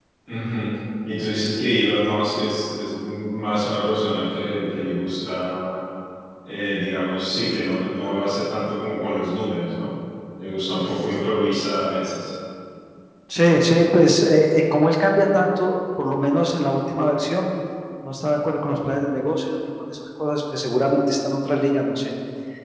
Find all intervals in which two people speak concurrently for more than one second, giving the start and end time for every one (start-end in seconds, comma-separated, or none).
none